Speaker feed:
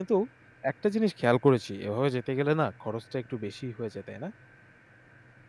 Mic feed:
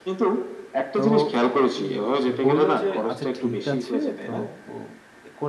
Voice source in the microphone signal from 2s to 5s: both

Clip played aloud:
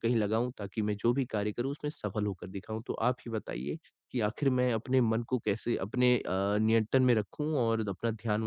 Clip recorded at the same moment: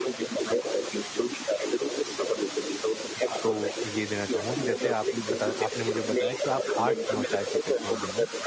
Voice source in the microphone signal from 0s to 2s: echo only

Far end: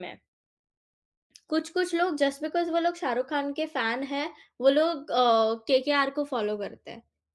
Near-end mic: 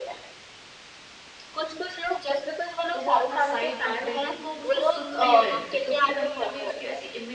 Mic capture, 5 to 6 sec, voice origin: both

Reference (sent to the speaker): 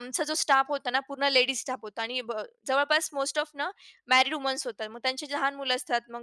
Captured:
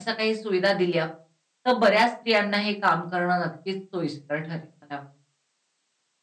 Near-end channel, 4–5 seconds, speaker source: user only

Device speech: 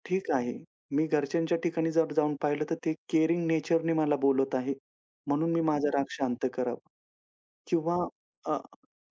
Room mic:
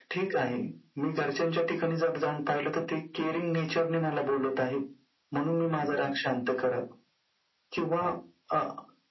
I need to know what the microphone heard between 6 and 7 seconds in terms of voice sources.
echo only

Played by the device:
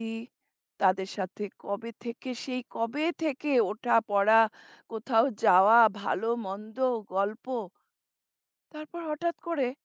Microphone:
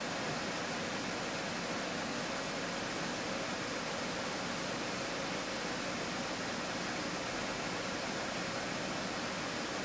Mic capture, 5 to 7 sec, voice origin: neither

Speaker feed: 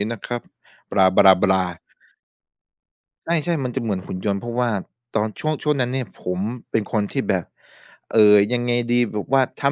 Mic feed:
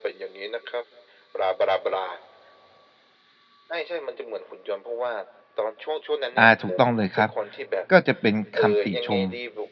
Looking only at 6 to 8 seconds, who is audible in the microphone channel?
both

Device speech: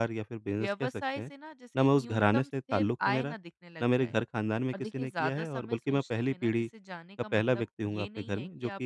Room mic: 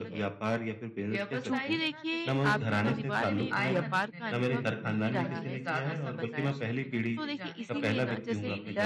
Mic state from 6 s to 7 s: both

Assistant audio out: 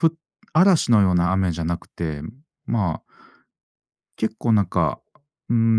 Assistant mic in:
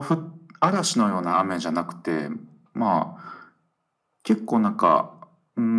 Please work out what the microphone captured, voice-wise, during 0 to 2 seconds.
echo only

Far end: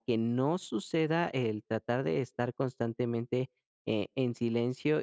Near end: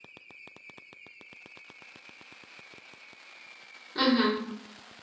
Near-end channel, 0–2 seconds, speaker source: neither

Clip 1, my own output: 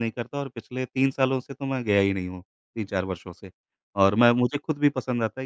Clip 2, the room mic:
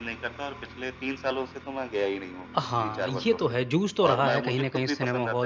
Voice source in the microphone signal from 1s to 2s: echo only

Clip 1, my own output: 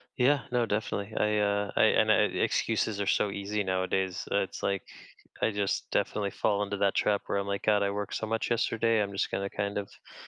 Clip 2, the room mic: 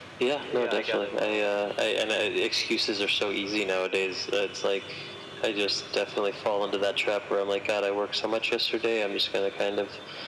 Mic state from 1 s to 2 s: both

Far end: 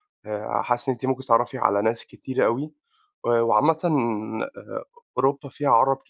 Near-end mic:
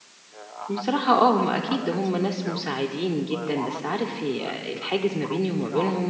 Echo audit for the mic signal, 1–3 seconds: both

